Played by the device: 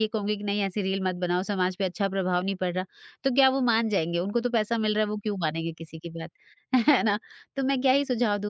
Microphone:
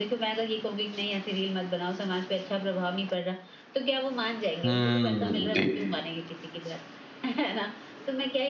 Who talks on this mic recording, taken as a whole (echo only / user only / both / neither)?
both